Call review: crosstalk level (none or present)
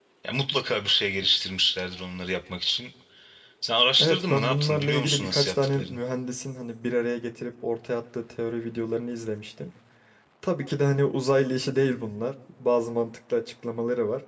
present